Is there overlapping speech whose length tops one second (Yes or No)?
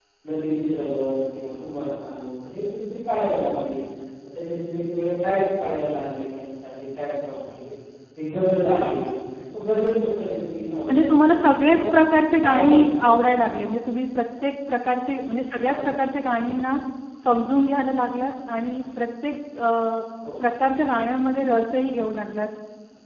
Yes